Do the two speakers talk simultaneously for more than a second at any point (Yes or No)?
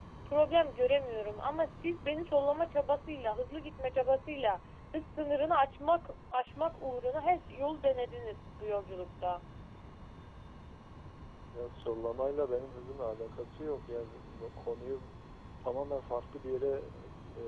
No